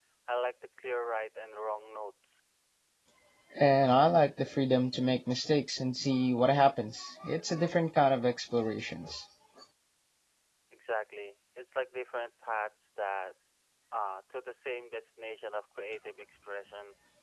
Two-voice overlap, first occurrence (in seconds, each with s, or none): none